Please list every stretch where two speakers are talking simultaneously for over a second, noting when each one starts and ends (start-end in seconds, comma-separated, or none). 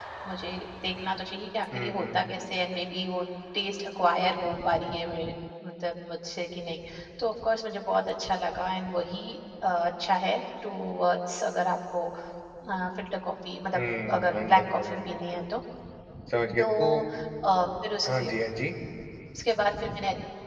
14.2-15.4